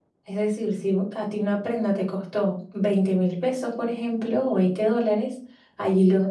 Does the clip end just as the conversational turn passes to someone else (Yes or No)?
No